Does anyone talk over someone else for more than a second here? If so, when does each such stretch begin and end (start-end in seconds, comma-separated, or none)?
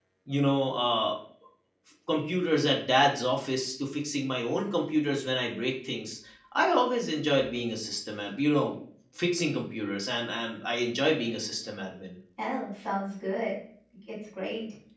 none